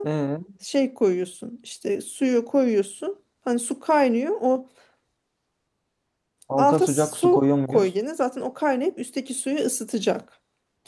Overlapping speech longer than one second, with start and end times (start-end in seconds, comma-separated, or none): 6.6-7.9